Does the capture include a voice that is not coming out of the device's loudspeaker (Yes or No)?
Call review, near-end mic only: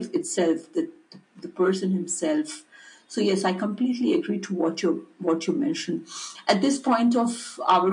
No